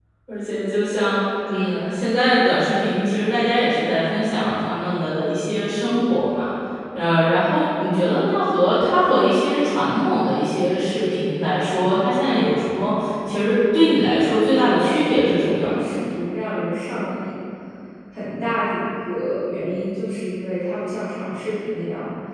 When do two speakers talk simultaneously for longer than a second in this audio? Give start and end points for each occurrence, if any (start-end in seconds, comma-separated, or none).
14.6-16.0